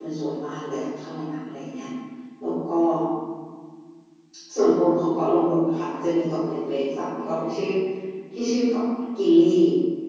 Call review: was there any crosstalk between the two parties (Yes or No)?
No